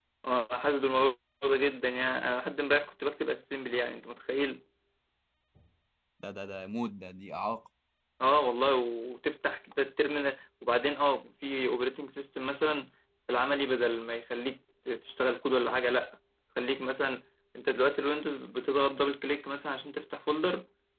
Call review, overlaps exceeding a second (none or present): none